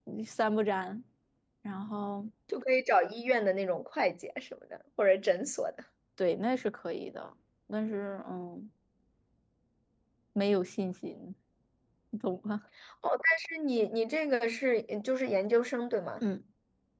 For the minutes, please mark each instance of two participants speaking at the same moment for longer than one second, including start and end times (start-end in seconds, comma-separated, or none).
none